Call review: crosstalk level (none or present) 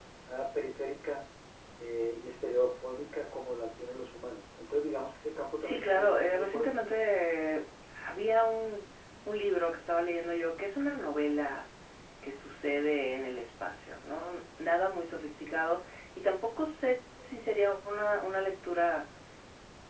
present